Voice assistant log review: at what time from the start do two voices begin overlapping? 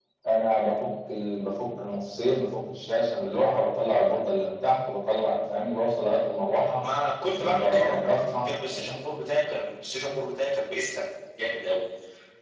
7 s

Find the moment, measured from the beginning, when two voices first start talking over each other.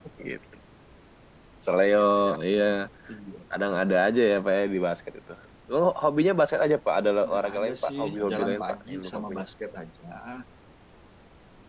7 s

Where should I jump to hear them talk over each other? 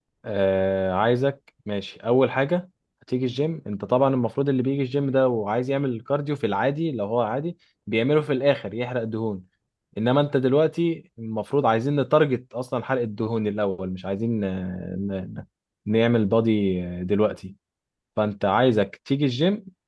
none

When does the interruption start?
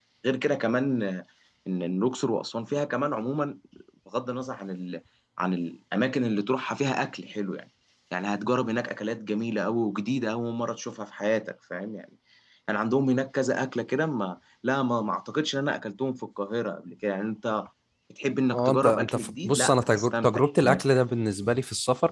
19 s

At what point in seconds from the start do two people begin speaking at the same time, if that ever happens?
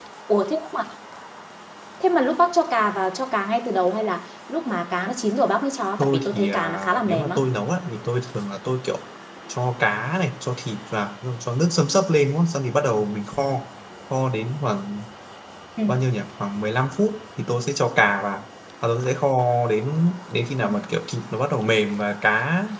6 s

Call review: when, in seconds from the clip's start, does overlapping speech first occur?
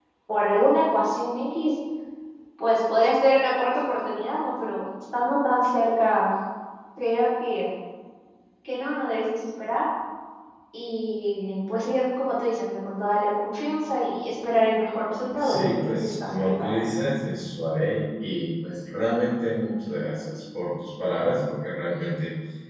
15 s

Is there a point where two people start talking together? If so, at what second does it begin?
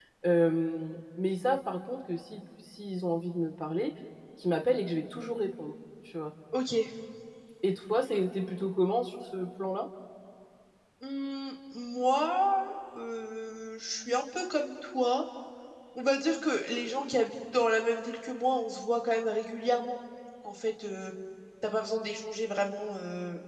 none

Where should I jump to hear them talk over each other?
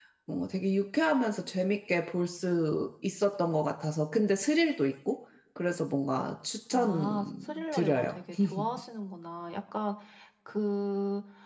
7 s

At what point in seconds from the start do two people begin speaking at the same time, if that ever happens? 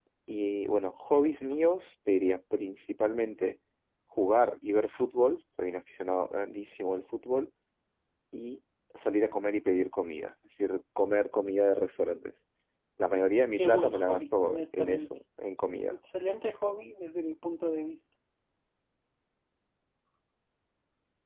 14 s

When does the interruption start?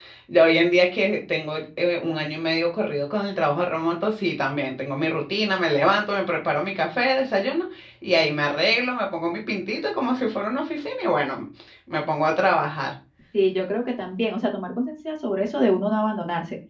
none

